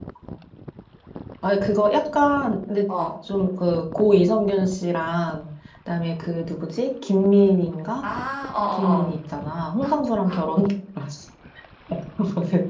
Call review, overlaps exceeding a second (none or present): none